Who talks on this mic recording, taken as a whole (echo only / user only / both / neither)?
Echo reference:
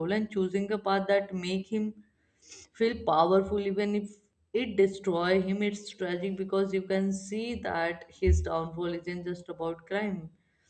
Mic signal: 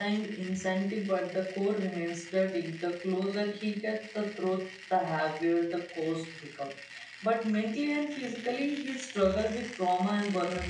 user only